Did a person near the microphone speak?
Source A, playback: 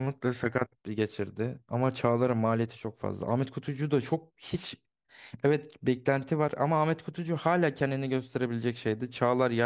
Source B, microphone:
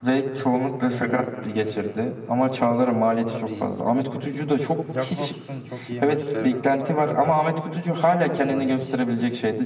Yes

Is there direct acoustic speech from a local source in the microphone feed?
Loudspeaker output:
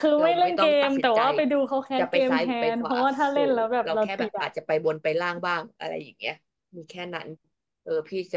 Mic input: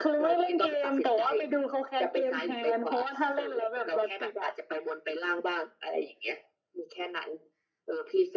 No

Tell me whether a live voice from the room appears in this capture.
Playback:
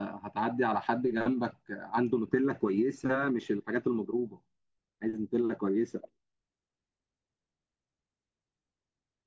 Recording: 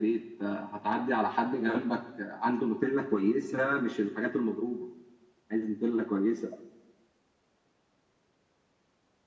No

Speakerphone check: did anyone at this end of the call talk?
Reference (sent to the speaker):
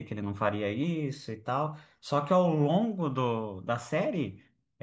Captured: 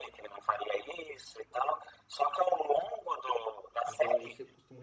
Yes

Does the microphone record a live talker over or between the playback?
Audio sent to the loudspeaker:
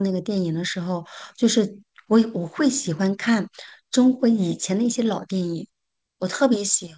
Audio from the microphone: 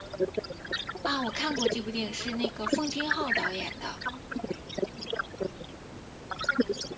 Yes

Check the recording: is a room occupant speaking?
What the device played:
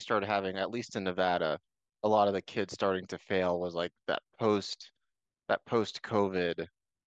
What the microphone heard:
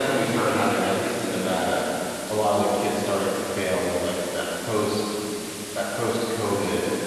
No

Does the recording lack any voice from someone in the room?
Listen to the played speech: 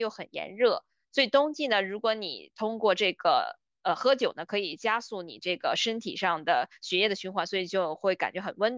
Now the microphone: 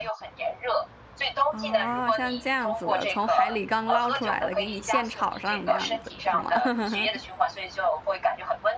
No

